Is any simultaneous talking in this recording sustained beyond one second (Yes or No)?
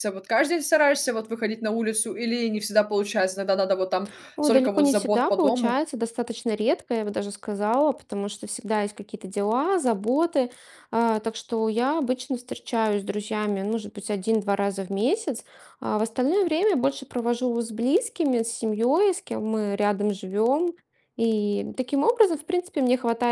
Yes